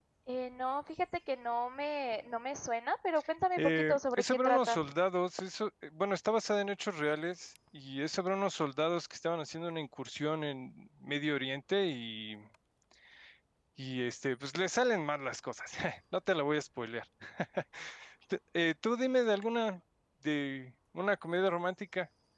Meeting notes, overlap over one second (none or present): present